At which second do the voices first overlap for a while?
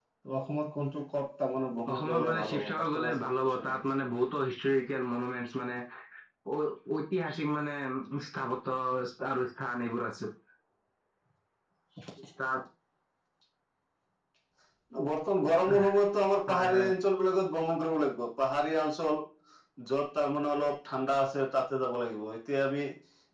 2 s

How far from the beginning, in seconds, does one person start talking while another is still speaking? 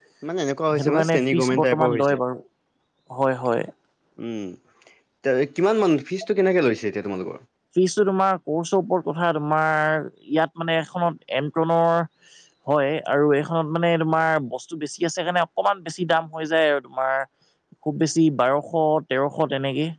1 s

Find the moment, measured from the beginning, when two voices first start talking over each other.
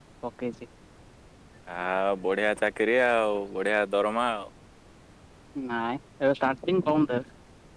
none

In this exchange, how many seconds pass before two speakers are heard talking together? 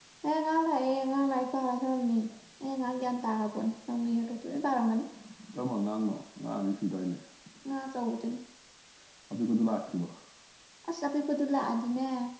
none

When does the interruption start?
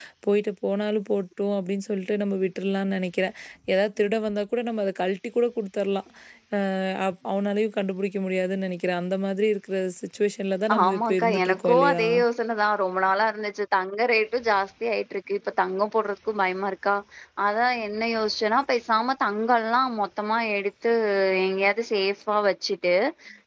11 s

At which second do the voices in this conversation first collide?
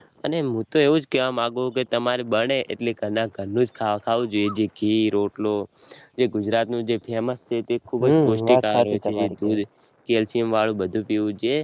8 s

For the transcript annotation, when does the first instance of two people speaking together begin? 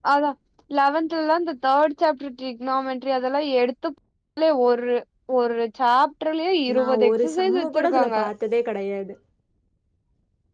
7 s

